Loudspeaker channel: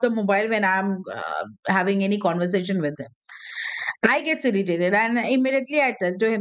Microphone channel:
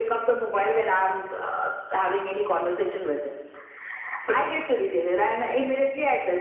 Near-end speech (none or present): none